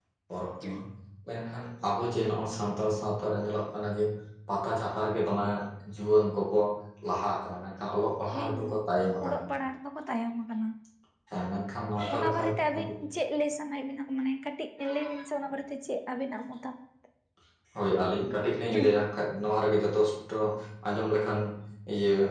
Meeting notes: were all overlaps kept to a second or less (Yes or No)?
Yes